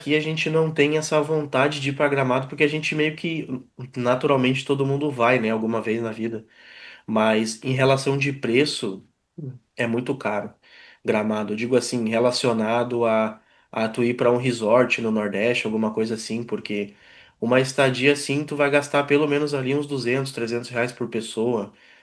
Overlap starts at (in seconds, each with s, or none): none